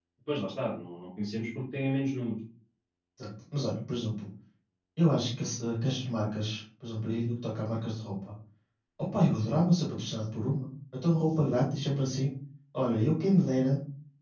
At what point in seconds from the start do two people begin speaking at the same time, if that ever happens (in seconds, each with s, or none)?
none